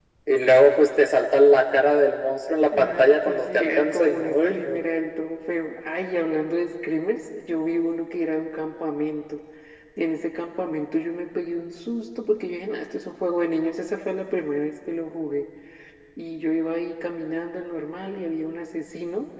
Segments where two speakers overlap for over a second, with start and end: 2.7-4.8

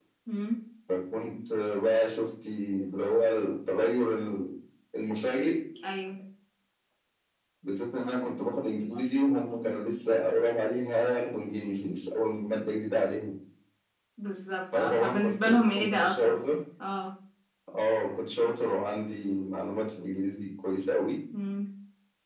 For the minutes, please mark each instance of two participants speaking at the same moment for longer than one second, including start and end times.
14.7-16.4

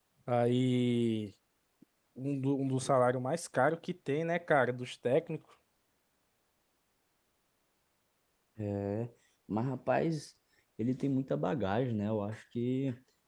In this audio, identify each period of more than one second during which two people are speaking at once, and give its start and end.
none

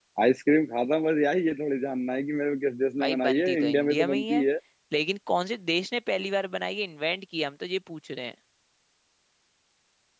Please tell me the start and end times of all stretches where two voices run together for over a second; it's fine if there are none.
3.0-4.5

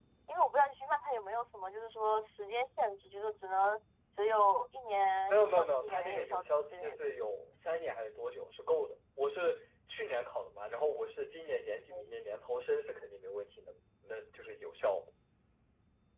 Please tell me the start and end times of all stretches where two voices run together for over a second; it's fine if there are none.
5.3-7.0

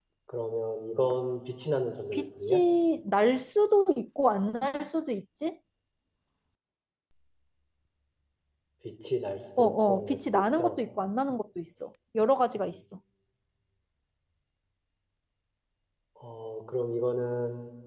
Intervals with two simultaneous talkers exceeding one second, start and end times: 9.6-10.8

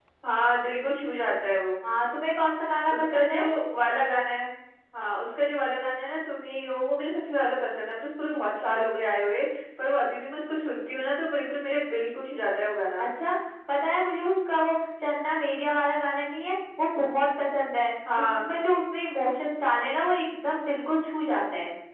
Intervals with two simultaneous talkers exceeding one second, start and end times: none

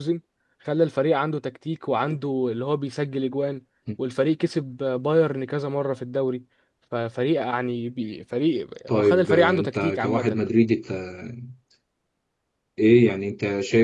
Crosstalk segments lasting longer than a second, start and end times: 8.9-10.4

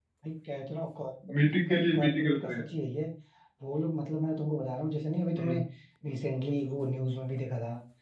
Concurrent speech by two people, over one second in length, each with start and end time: 1.4-2.6

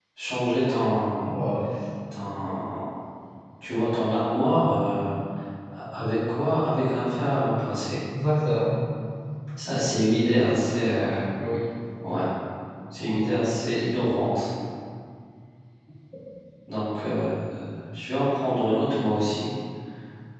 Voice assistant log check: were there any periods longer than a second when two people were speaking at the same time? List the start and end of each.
none

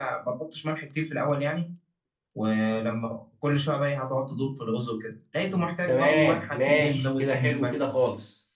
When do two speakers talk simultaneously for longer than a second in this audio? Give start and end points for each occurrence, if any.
5.9-7.8

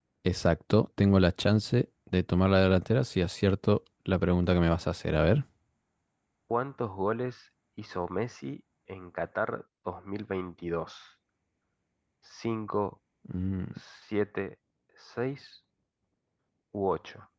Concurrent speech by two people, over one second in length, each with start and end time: none

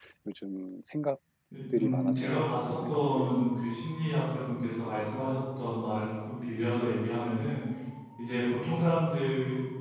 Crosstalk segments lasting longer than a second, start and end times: 1.8-3.3

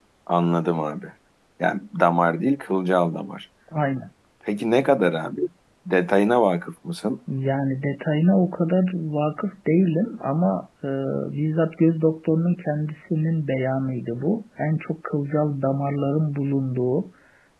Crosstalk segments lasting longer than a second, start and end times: none

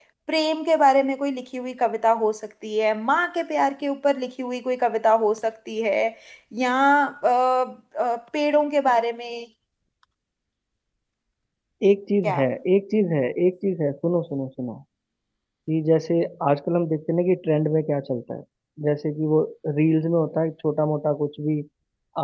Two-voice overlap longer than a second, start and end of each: none

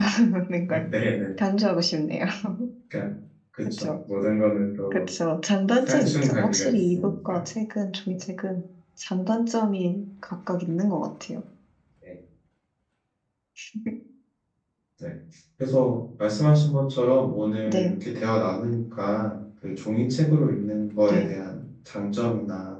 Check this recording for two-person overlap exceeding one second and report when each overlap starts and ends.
5.8-7.4

